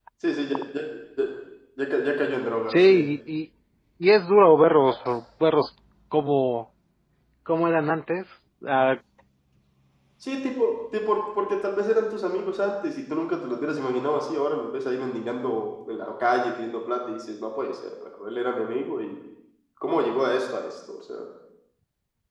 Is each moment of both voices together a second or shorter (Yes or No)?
Yes